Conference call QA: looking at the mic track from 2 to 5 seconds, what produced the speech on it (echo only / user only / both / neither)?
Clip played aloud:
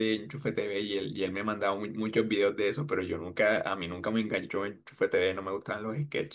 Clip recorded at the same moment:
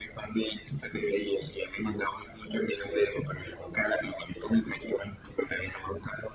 echo only